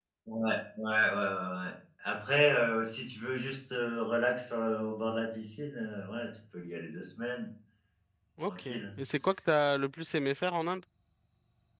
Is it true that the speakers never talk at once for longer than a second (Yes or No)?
Yes